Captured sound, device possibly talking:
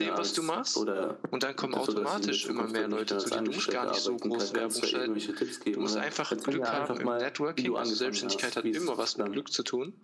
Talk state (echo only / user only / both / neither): echo only